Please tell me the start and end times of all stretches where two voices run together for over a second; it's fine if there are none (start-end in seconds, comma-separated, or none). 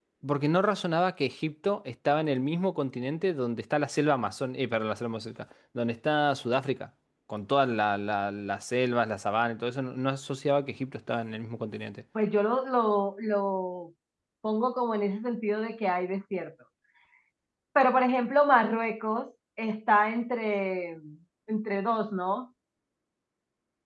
none